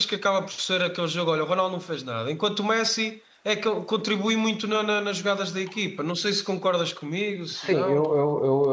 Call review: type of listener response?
taking over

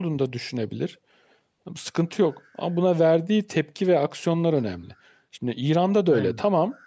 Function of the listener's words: listening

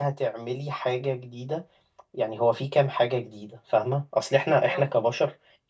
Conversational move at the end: listening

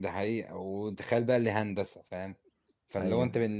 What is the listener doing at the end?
listening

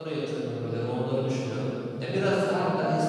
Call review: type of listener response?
listening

